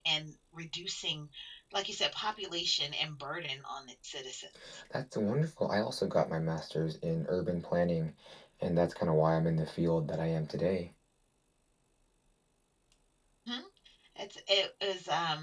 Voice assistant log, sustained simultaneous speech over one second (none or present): none